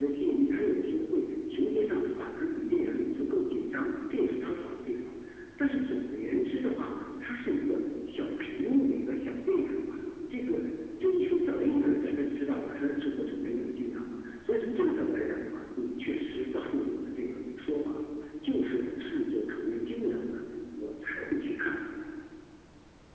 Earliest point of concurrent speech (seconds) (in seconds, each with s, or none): none